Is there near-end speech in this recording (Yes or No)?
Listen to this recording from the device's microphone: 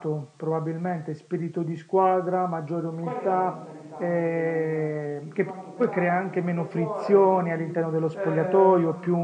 Yes